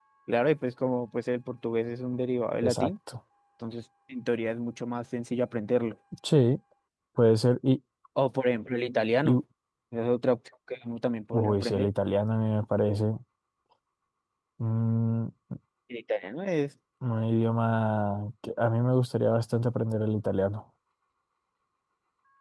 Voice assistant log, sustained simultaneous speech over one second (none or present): none